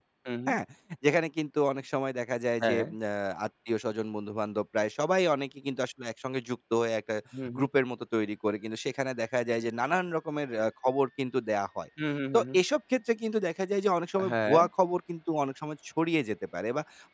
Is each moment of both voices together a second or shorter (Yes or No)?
Yes